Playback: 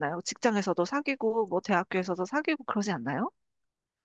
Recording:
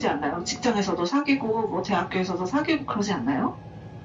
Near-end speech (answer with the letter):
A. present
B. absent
B